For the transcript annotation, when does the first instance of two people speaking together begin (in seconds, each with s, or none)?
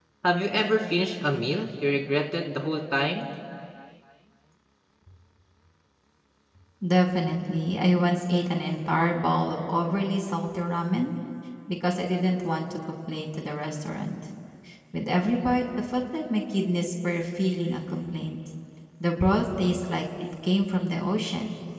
none